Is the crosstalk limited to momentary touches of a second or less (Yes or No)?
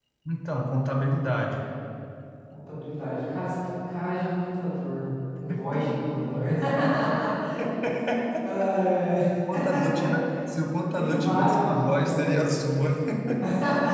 No